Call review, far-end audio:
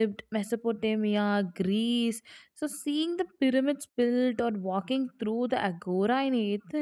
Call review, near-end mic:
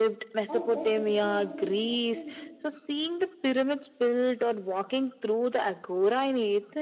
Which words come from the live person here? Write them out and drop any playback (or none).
or let history unfold naturally?